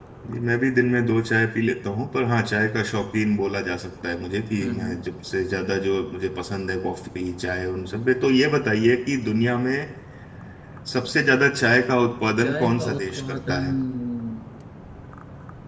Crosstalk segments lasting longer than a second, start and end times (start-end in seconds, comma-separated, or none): 12.4-13.7